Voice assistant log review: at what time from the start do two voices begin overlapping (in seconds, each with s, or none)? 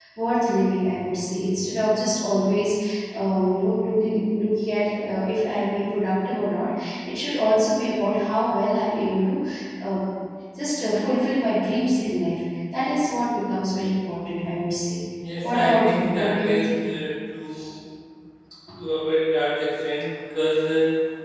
15.2 s